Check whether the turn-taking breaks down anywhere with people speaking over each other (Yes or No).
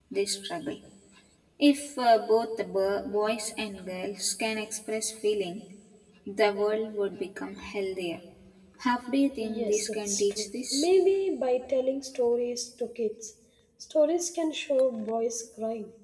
Yes